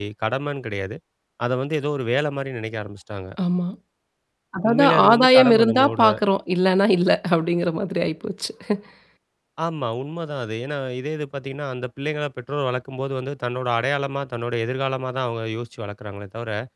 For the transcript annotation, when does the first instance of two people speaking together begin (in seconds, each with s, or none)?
4.7 s